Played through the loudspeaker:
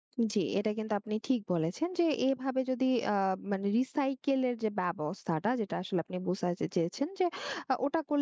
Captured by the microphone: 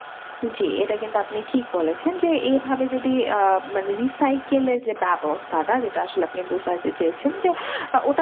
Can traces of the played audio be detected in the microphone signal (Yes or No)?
Yes